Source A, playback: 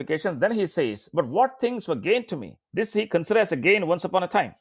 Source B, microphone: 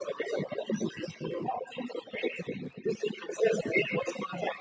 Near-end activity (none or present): none